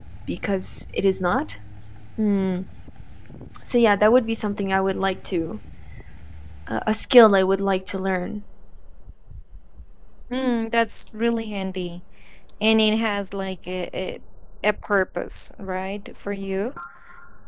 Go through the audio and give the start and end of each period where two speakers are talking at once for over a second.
none

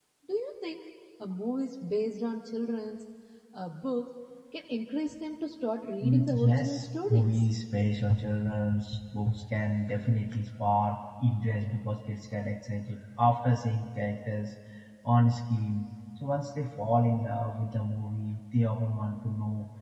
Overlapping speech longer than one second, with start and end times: 6.0-7.4

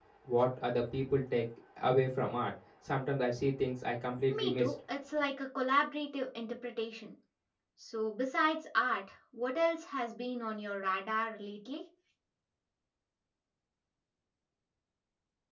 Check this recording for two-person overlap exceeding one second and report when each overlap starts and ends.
none

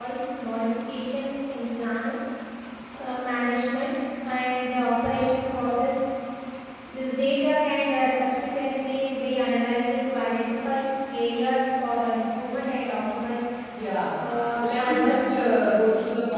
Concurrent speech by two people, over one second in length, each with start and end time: 14.6-15.8

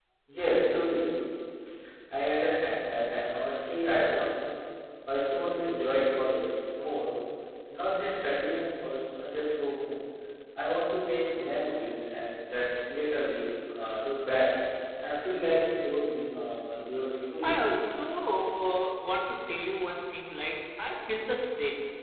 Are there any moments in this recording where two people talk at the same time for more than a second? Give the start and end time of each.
none

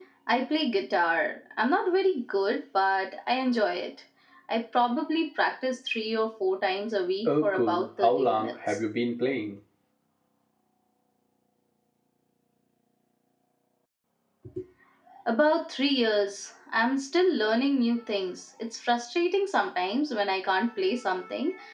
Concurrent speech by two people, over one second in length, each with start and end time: 7.2-8.8

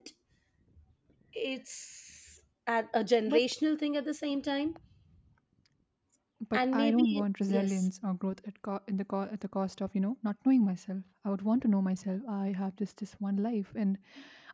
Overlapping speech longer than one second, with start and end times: 6.5-7.8

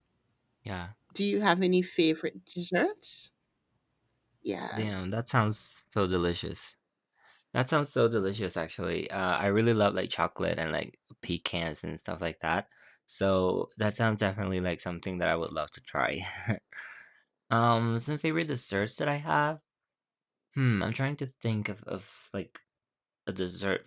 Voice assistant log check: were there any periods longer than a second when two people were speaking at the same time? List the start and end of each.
none

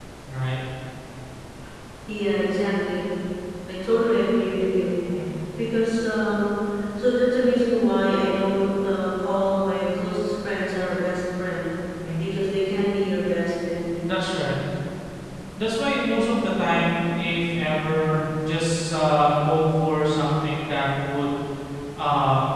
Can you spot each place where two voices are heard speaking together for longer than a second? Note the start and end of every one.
none

